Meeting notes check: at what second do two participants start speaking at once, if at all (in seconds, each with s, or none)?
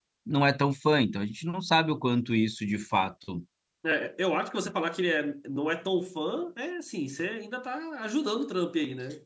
none